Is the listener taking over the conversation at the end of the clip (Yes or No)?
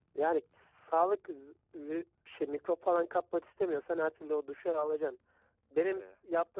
No